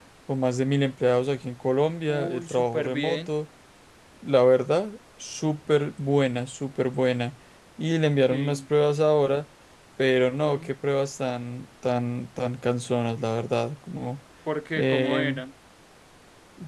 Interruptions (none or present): present